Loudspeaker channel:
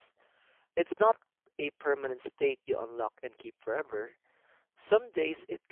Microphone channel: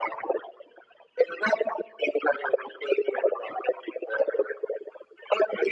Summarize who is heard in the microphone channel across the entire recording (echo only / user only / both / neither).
echo only